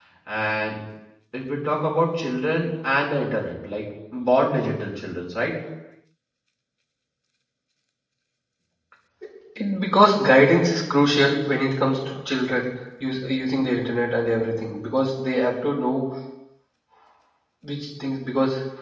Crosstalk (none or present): none